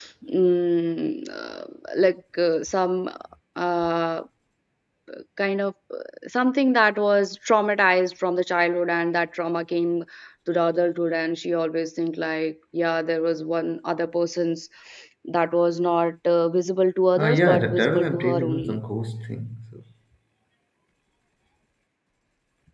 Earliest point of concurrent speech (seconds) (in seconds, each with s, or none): 17.2 s